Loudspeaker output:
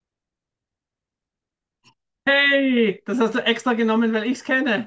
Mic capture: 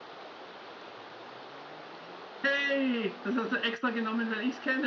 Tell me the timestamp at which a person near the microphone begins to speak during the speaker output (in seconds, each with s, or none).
none